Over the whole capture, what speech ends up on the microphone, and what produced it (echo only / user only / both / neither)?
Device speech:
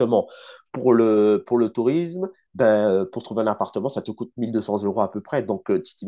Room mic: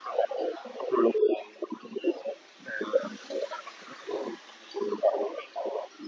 echo only